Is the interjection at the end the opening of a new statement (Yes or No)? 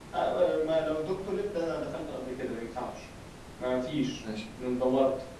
No